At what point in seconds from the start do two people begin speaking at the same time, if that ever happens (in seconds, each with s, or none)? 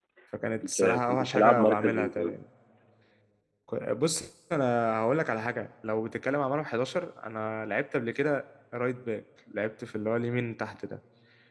0.6 s